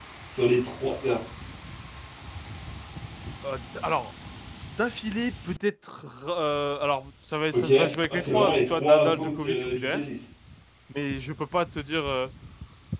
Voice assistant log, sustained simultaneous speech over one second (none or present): present